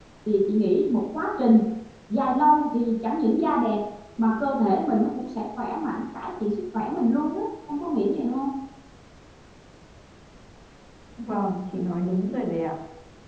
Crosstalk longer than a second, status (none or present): none